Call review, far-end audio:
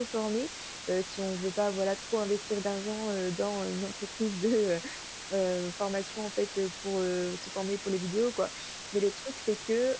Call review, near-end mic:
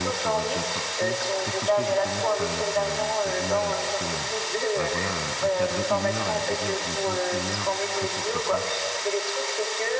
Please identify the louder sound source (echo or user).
echo